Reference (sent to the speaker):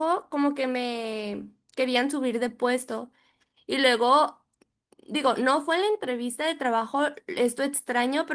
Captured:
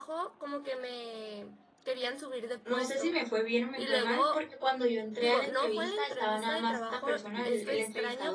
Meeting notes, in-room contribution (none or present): present